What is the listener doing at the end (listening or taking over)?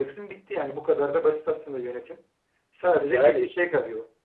listening